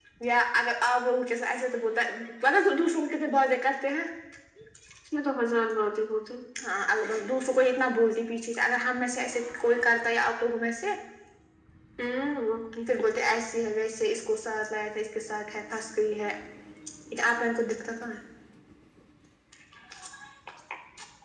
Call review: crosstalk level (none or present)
none